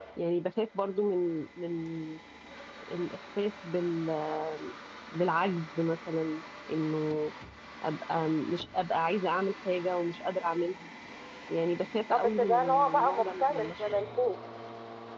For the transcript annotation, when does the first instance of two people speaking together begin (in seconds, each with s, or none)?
12.1 s